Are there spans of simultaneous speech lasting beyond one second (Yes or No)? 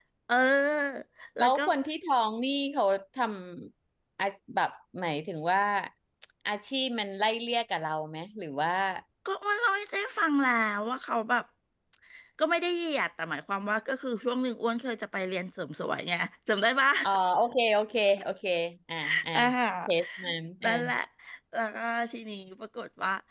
No